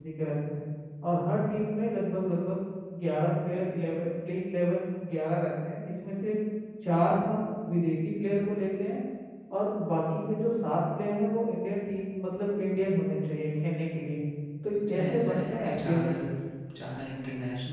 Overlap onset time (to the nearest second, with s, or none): 15 s